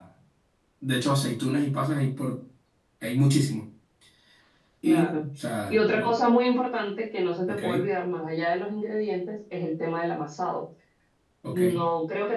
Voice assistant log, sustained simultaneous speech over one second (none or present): none